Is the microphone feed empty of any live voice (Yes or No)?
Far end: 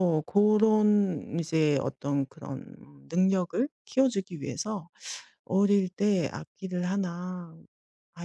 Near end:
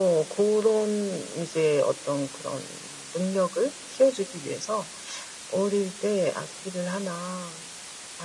Yes